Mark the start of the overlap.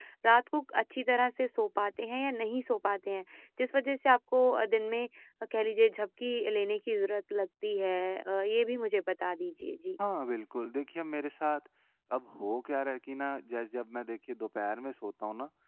none

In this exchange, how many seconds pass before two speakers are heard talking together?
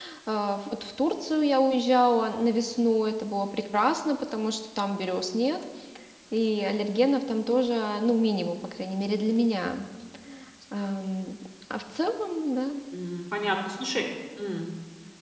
none

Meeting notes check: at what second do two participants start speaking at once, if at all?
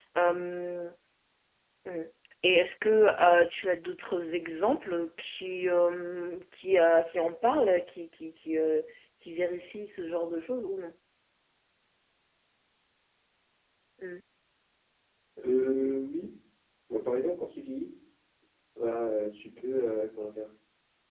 none

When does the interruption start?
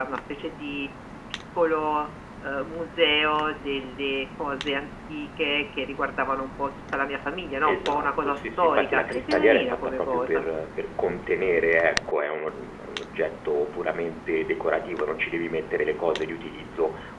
7.6 s

